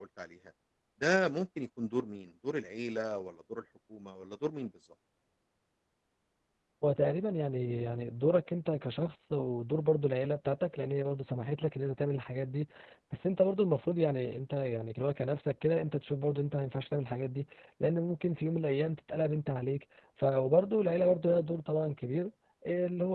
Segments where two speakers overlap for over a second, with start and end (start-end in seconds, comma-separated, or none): none